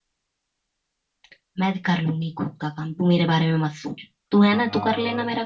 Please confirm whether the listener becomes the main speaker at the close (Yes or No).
Yes